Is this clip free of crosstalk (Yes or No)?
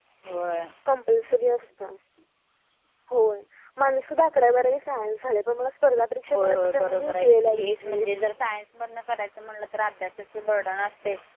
No